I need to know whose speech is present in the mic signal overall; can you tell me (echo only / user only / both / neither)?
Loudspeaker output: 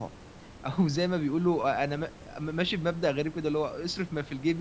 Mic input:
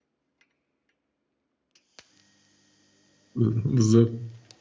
user only